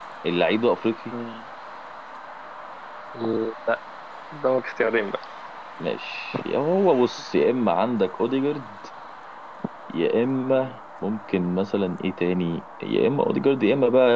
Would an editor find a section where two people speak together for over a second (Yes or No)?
No